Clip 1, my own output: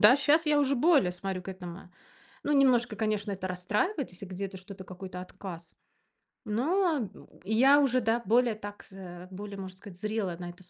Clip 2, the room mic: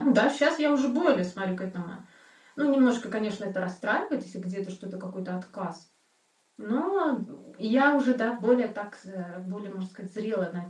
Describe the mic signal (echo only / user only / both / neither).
echo only